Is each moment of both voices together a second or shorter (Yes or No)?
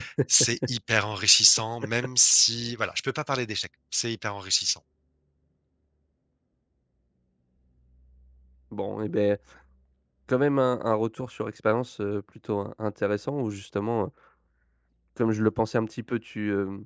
Yes